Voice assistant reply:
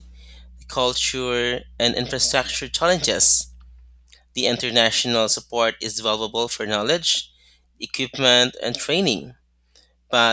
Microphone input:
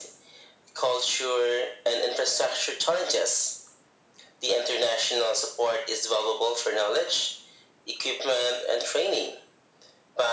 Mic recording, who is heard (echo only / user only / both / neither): echo only